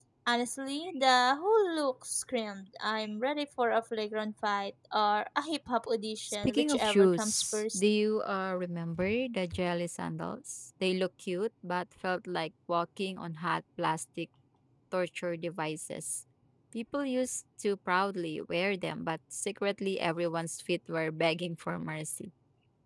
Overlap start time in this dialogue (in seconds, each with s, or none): 6.3 s